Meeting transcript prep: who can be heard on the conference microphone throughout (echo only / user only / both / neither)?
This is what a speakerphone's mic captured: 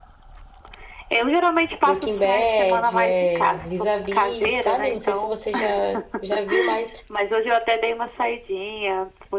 both